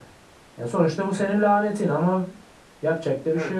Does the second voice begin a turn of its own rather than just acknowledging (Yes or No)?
Yes